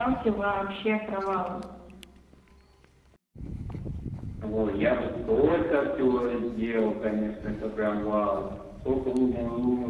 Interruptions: none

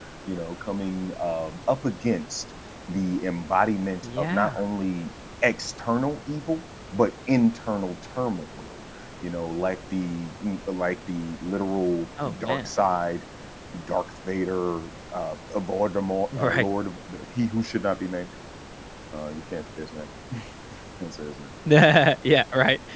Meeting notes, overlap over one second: none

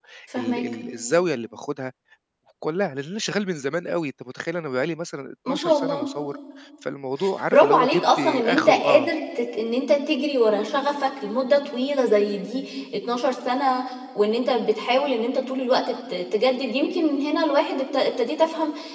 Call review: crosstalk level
present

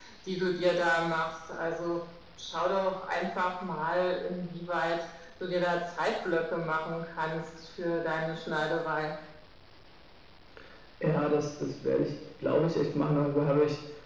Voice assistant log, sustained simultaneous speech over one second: none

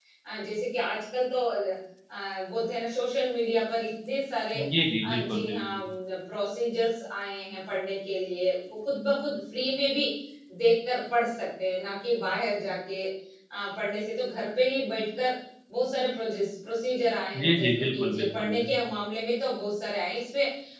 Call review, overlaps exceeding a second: present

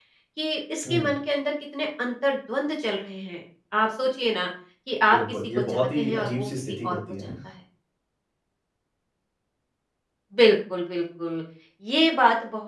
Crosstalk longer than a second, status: present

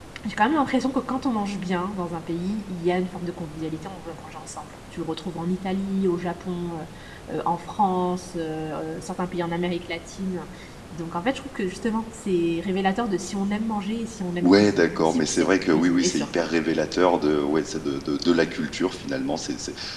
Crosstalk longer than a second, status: present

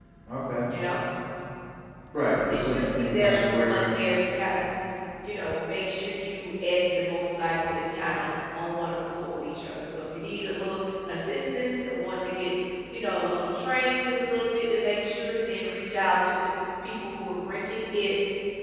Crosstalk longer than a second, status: present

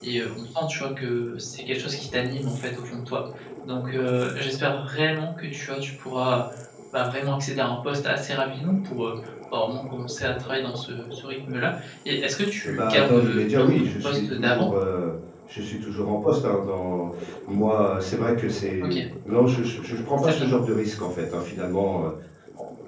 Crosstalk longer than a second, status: present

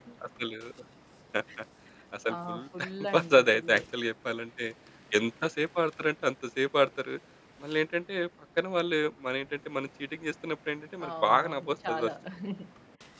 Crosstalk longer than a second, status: present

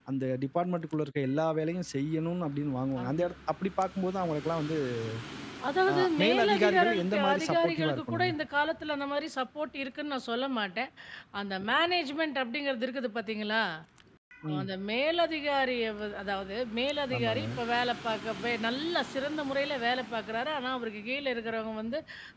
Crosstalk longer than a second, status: present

